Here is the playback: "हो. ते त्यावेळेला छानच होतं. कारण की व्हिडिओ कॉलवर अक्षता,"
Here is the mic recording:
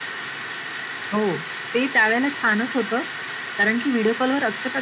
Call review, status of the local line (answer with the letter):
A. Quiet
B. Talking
A